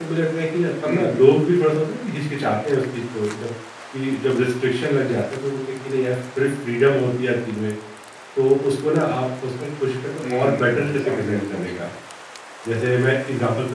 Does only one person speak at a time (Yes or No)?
No